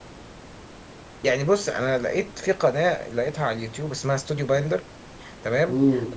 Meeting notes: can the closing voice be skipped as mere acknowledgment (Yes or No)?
Yes